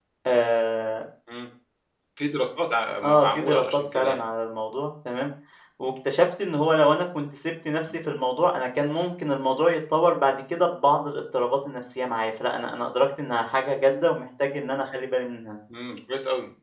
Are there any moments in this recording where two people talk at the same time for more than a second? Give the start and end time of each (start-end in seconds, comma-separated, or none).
3.0-4.2